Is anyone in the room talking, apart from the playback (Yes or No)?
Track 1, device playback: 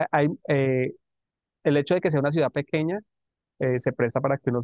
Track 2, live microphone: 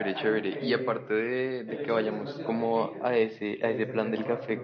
Yes